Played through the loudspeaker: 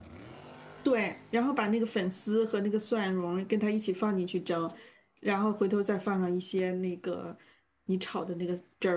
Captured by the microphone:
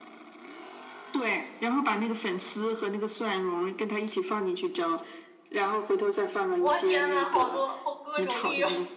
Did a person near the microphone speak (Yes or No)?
Yes